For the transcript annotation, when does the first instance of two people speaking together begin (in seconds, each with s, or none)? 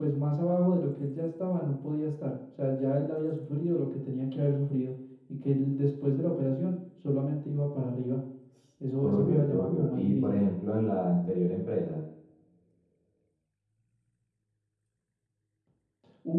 9.0 s